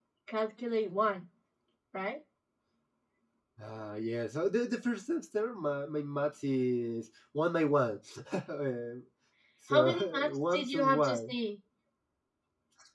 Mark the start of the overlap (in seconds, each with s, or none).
9.7 s